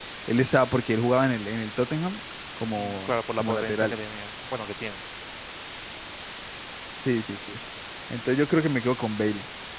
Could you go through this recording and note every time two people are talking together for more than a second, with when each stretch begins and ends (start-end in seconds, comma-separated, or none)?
2.8-4.0